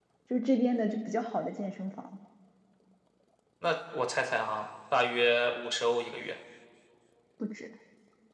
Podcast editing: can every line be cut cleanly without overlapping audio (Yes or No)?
Yes